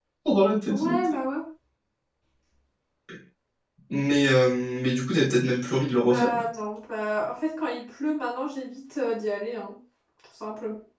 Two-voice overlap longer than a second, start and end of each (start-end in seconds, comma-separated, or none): none